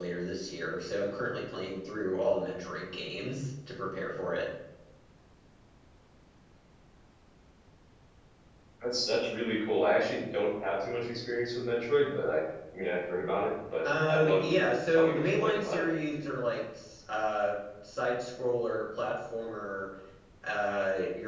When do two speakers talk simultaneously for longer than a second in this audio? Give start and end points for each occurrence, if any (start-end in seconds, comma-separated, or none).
13.8-15.8